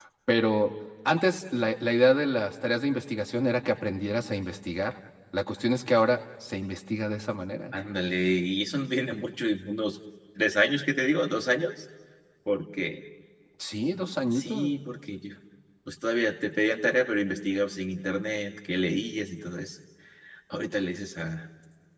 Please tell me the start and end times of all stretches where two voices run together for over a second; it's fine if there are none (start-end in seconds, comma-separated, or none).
none